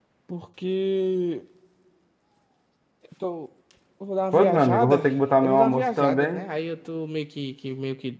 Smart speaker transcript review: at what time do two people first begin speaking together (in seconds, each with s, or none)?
4.3 s